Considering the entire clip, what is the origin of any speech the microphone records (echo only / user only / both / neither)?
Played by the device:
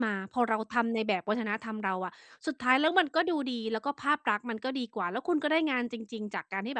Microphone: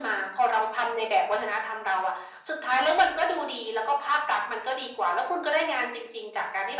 echo only